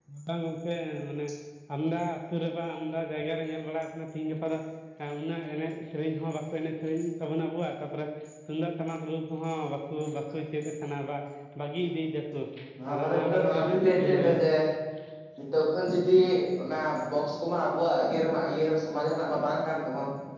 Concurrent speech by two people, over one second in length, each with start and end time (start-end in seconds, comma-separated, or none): 12.9-14.4